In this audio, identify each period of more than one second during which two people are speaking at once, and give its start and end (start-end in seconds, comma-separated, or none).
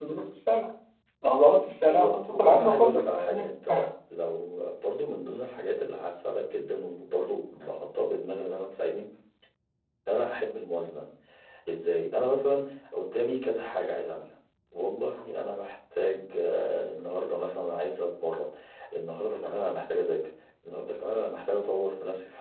1.9-3.5